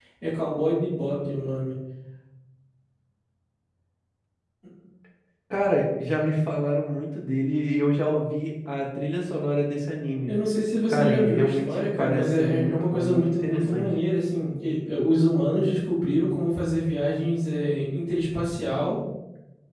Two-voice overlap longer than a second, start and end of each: 10.9-13.9

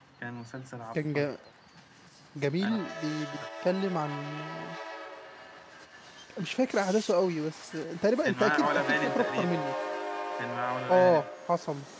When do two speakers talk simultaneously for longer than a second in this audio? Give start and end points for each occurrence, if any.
8.2-9.6

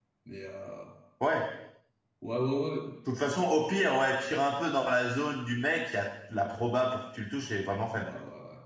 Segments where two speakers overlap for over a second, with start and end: none

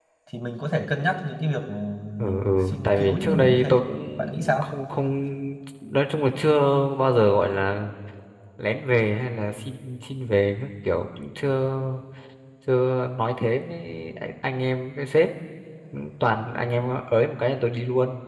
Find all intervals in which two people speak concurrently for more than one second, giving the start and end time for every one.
2.2-3.7

